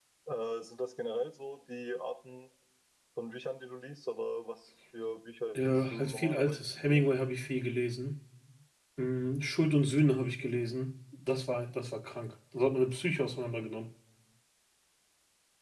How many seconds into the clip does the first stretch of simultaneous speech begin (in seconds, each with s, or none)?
5.5 s